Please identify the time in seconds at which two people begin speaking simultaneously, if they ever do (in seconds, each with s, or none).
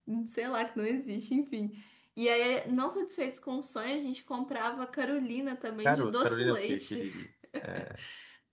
5.8 s